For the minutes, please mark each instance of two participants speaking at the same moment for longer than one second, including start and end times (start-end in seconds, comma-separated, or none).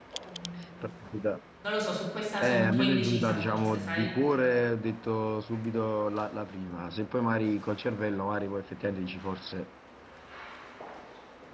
2.4-4.1